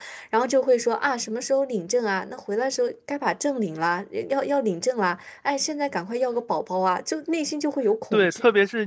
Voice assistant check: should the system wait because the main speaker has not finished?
No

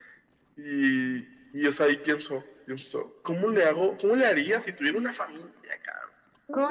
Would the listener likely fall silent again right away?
No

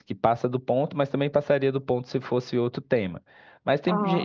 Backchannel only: Yes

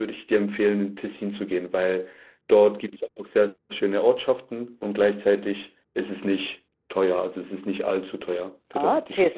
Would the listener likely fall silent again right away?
No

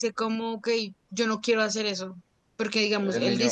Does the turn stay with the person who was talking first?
Yes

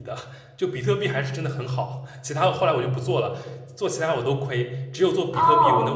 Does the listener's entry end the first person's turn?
Yes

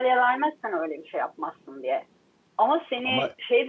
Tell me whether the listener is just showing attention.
Yes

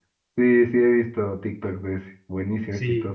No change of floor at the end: No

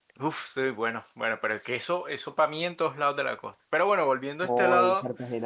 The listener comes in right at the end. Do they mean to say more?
Yes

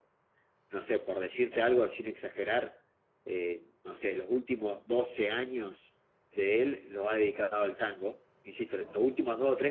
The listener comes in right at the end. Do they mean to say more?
No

